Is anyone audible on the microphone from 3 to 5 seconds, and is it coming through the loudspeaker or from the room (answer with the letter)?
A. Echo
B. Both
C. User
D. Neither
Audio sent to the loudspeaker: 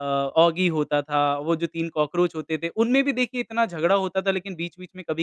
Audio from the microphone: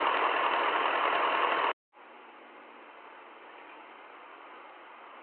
D